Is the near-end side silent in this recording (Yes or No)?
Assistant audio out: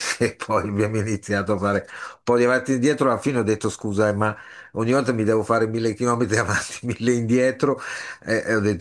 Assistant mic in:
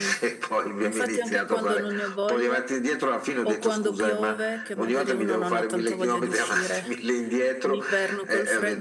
No